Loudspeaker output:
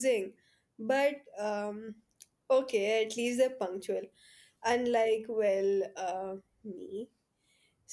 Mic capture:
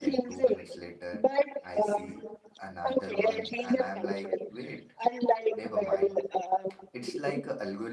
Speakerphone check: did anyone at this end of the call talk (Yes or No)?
Yes